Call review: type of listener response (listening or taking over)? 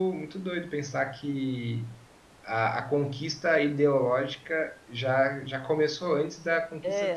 taking over